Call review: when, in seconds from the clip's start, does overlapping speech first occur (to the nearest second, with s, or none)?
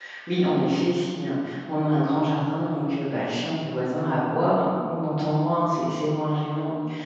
none